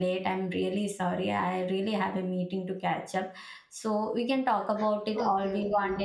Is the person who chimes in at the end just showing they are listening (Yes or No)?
No